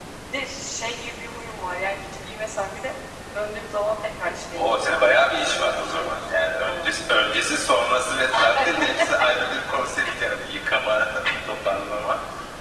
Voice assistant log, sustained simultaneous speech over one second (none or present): present